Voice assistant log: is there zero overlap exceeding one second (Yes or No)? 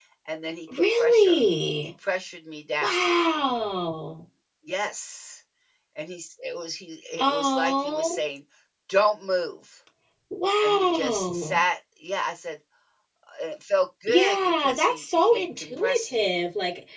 No